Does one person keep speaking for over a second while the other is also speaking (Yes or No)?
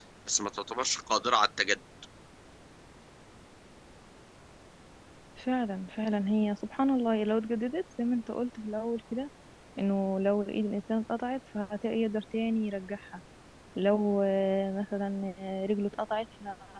No